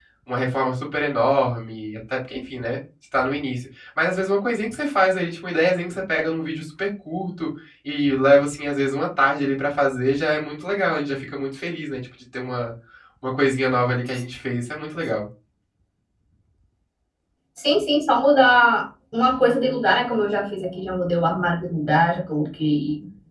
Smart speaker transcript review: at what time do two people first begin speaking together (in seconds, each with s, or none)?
none